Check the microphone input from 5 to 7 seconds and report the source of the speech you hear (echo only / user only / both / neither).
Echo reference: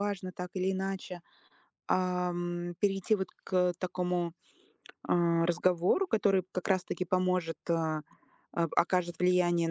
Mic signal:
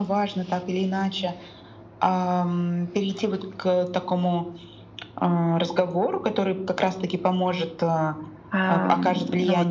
echo only